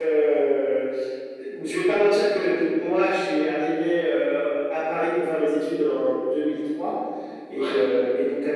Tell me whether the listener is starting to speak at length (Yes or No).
No